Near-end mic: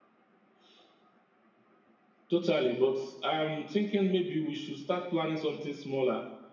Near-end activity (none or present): none